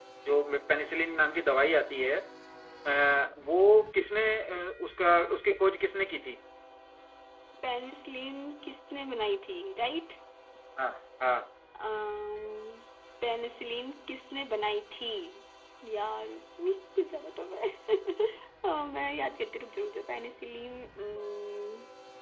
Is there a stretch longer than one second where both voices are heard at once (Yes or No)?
No